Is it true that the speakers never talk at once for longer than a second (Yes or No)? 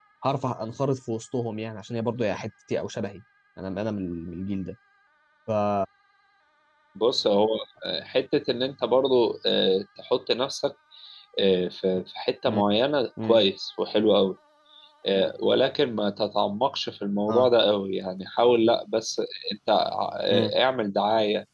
Yes